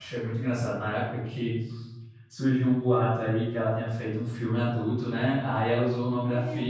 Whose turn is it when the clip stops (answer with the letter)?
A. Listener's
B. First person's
B